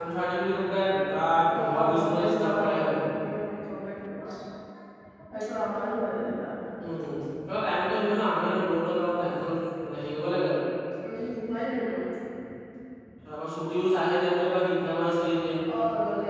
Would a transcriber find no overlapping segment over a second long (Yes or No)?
No